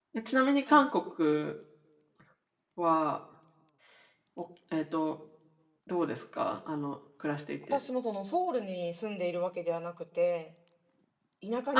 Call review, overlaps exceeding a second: none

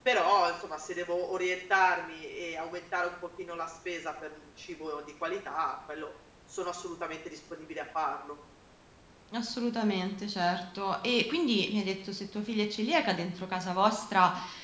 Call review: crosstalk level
none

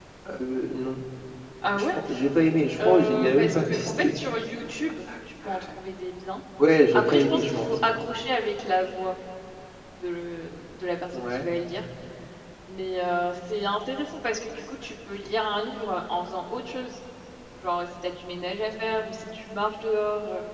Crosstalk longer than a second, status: present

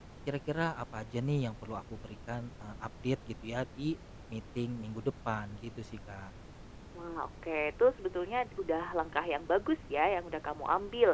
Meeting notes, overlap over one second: none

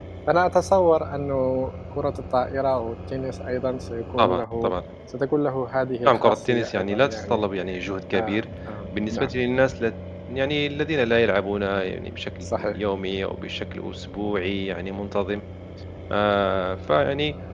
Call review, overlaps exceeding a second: present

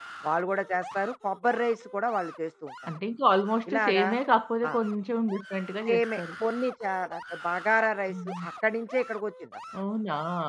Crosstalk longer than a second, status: none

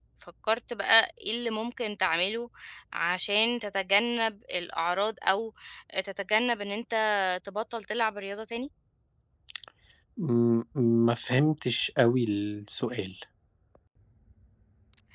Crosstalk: none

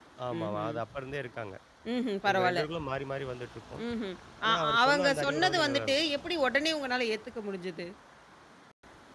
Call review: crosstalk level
present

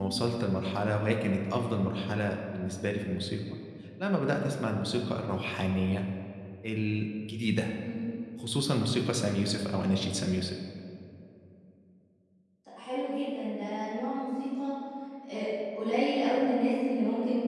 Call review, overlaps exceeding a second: none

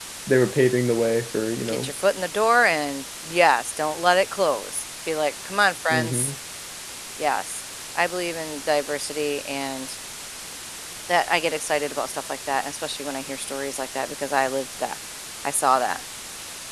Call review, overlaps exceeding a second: none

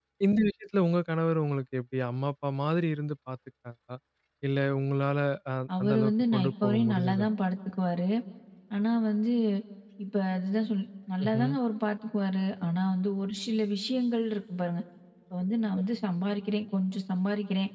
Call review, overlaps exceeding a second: present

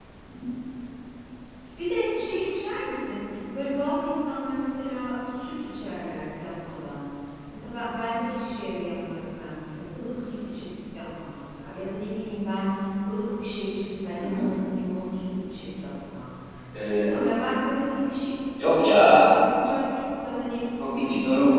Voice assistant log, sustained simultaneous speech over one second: none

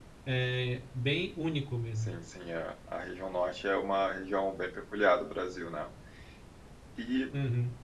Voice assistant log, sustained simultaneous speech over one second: none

